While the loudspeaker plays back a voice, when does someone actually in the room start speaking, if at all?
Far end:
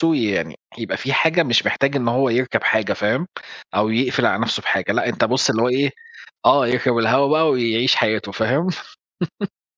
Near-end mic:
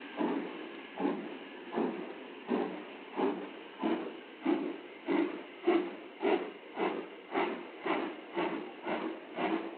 none

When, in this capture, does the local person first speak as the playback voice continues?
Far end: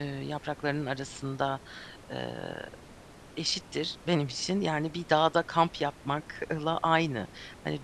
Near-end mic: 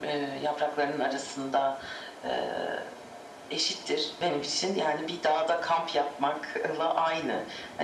none

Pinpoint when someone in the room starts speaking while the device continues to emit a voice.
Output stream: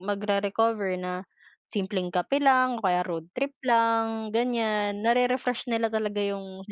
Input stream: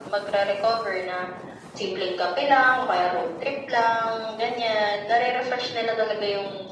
none

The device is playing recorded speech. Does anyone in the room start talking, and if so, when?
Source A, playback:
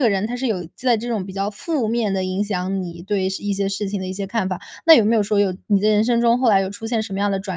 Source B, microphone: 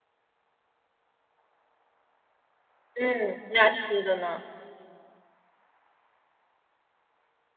3 s

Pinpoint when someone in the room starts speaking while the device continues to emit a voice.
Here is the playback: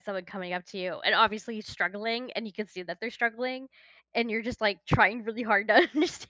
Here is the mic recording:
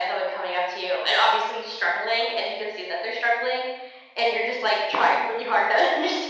none

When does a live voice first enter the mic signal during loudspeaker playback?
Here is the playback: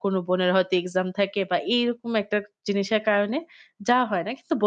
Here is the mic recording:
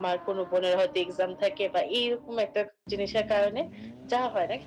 none

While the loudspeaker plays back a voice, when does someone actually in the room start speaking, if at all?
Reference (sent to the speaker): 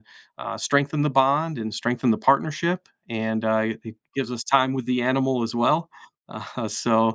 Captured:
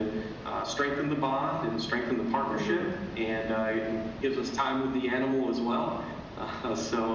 3 s

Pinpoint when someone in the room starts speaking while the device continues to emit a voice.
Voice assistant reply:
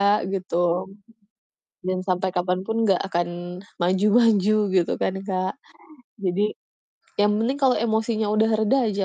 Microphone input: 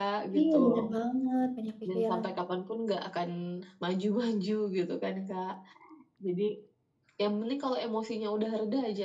0 s

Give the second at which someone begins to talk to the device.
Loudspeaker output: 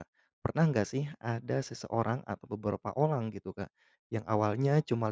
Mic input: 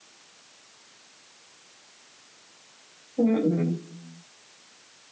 3 s

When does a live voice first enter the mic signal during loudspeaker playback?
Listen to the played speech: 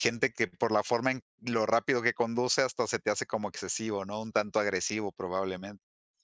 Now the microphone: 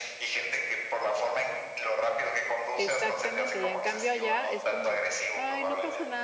3 s

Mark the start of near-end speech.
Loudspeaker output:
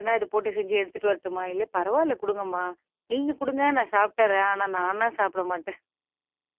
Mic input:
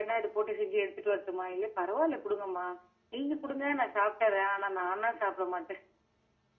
none

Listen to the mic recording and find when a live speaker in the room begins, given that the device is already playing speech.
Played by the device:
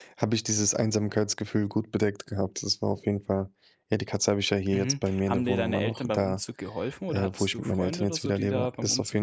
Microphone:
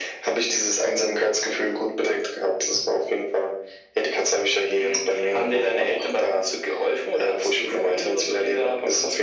none

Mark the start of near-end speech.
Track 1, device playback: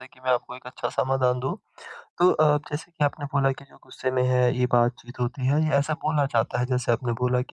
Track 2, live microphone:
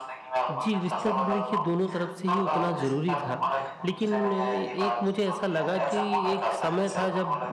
0 s

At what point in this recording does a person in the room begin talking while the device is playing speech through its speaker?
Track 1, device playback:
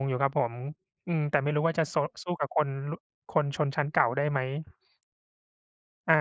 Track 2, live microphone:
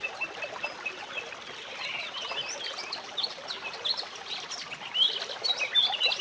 none

